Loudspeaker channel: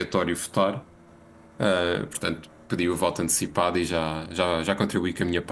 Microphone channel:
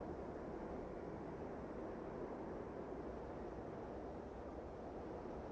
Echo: none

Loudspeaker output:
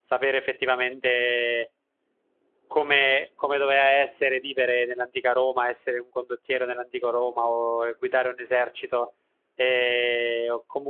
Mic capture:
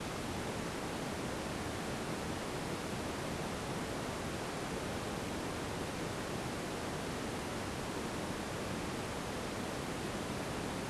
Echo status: none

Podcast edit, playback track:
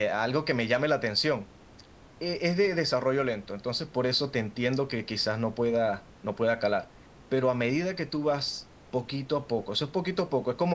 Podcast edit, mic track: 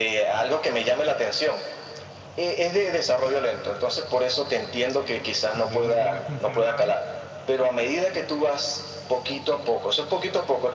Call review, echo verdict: present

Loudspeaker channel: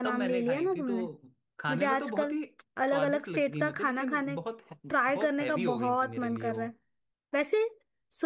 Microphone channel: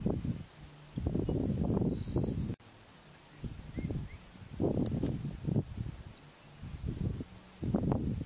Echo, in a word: none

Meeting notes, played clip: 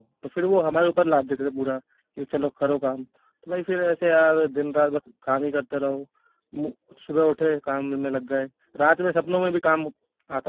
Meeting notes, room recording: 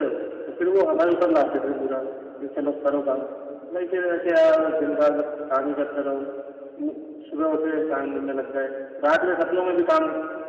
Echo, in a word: present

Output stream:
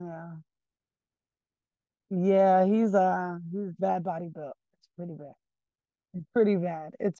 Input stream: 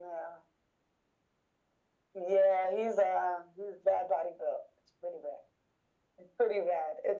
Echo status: present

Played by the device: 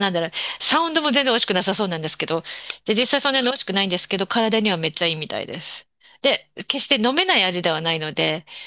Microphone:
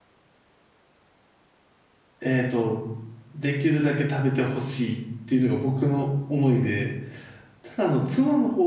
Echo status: none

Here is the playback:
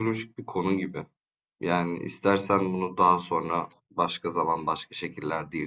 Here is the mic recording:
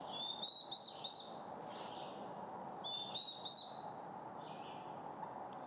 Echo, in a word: none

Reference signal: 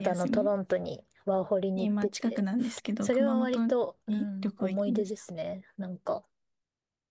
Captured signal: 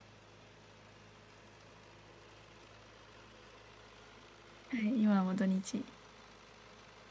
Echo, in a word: none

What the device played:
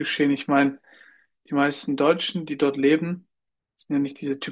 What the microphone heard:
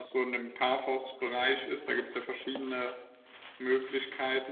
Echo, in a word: none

